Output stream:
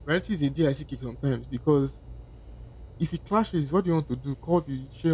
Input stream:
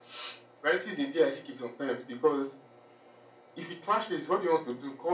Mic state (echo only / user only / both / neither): echo only